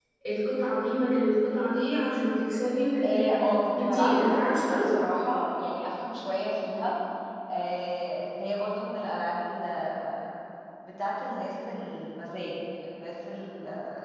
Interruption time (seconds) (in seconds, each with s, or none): 3.0 s